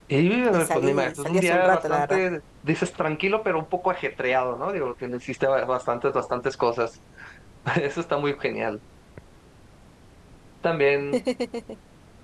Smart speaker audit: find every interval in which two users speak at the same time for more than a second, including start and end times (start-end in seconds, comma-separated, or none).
0.5-2.2